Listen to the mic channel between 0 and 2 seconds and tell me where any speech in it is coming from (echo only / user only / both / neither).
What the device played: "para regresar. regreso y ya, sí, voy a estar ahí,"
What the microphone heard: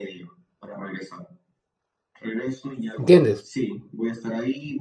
echo only